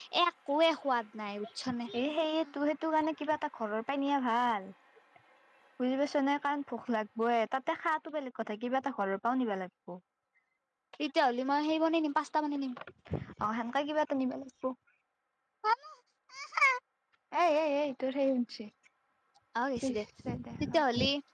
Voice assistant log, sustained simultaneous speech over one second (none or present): none